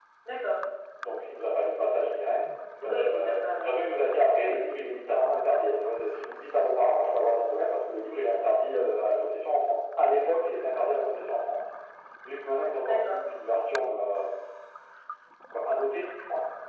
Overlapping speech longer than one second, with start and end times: 2.9-4.1

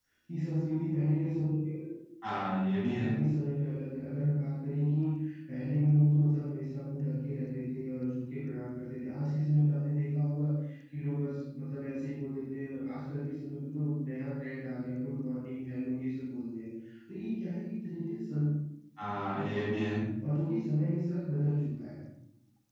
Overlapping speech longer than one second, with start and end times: none

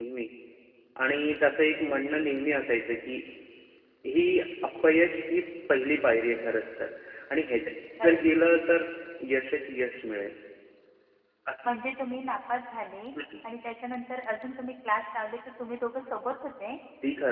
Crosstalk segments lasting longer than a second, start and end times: none

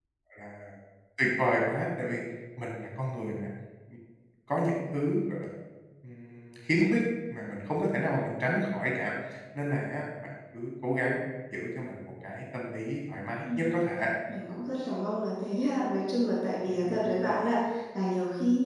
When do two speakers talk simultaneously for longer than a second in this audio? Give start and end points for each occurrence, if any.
none

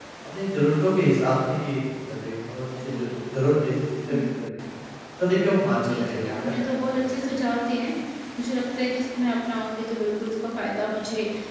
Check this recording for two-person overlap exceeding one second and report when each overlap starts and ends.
5.8-7.2

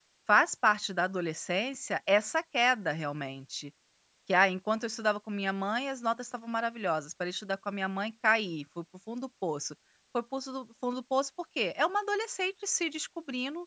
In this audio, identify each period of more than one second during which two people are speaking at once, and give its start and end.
none

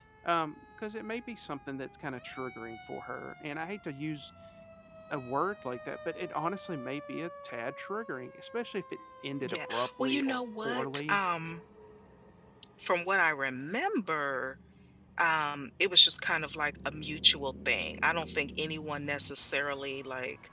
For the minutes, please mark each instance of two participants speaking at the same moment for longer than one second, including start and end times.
9.4-11.2

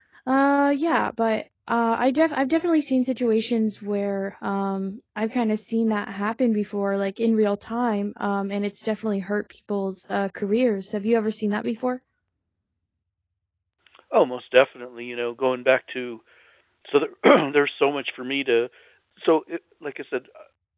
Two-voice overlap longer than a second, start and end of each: none

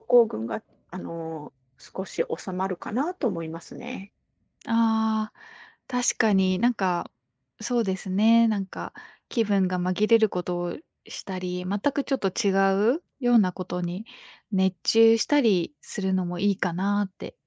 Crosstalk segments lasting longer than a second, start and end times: none

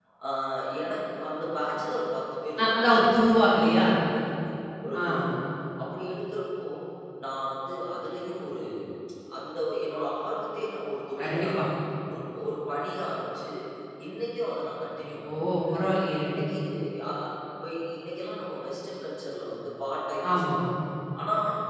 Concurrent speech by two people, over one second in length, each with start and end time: 2.6-3.9

